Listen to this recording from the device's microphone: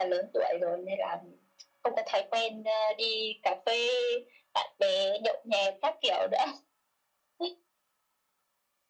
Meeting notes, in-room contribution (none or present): none